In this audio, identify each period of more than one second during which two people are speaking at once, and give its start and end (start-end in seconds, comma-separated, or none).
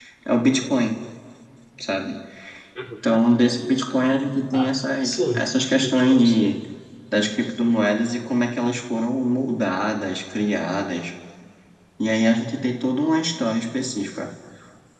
5.3-6.6